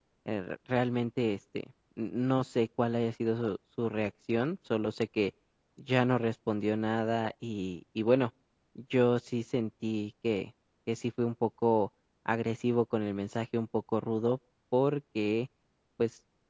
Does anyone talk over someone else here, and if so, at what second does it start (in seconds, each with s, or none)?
none